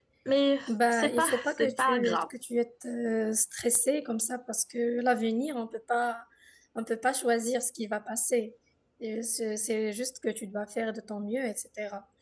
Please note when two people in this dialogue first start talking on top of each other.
0.7 s

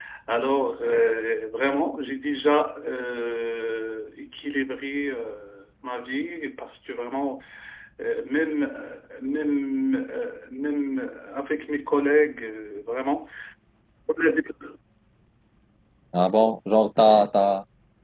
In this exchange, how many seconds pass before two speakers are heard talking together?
none

